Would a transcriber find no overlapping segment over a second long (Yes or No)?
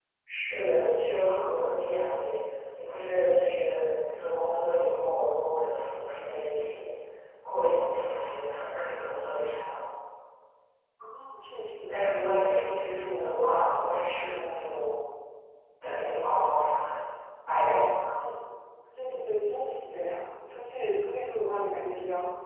Yes